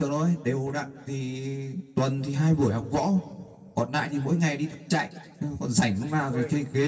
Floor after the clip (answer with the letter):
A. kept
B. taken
A